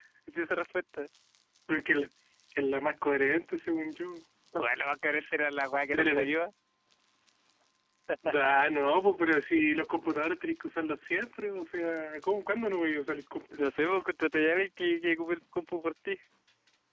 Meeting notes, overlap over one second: none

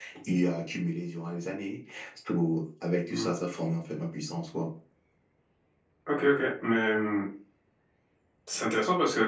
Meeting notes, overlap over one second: none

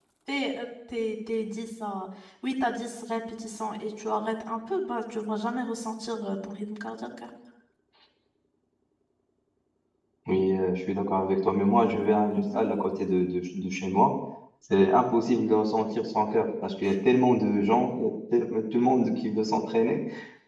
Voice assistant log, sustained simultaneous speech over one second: none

